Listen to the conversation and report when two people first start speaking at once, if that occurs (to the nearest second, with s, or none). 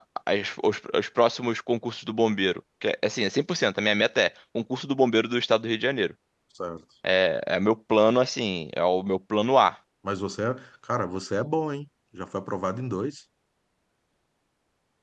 none